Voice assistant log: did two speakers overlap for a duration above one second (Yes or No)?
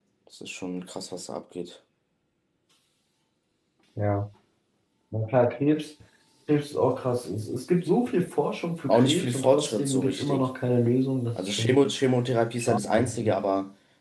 Yes